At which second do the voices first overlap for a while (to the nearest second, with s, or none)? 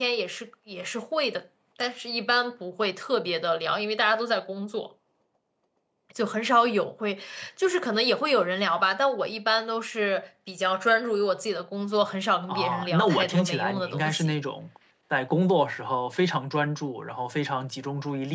12 s